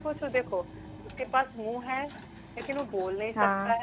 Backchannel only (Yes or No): Yes